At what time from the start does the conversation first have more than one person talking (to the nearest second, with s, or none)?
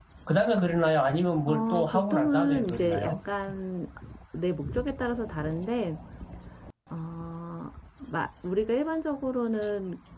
1 s